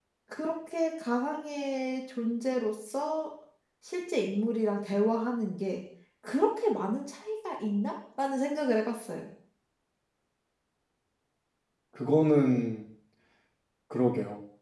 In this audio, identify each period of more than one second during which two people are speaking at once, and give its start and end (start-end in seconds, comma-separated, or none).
none